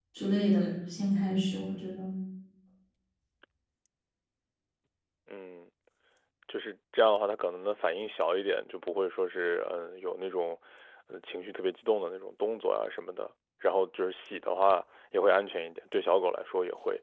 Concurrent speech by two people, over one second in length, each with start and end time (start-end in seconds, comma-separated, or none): none